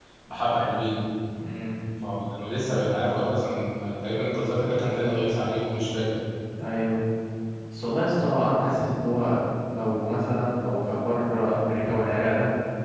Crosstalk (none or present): none